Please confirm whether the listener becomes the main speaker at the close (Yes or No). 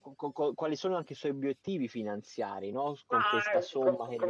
Yes